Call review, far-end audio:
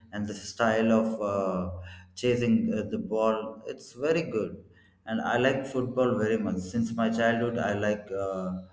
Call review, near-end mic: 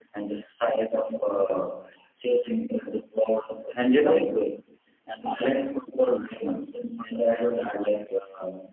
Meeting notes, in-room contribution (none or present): present